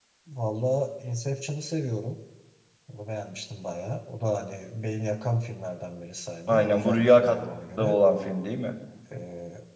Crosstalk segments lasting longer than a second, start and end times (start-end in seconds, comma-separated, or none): 6.5-8.0